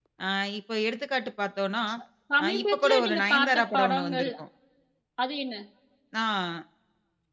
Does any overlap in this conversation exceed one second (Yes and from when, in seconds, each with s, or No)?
Yes, from 2.4 s